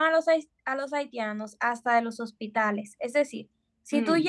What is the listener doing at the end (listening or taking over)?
listening